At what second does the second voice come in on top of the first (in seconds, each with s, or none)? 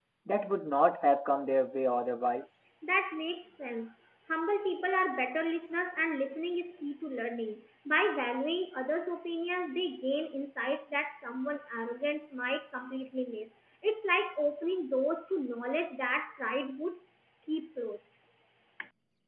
none